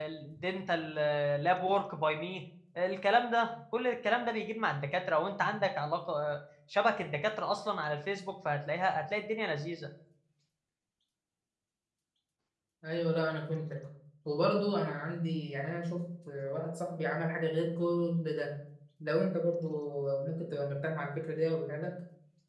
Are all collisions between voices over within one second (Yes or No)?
Yes